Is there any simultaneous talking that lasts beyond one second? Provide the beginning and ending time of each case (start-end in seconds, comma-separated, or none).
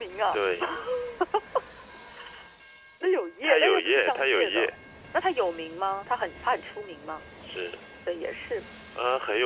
3.4-4.7